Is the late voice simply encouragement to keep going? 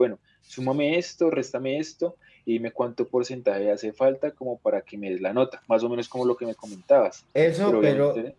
No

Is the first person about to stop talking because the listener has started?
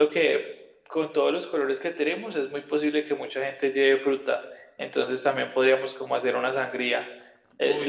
No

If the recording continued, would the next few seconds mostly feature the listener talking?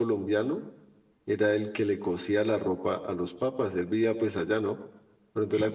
No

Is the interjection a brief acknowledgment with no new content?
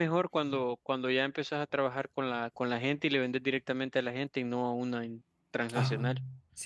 No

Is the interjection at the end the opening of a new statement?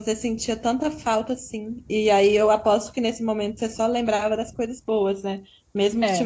No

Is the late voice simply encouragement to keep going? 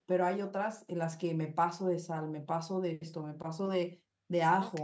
Yes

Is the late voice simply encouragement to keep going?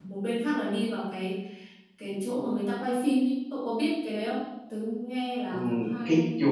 No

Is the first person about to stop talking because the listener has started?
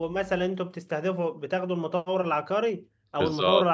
No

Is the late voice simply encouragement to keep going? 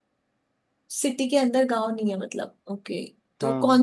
Yes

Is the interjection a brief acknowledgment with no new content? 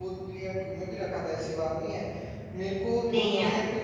Yes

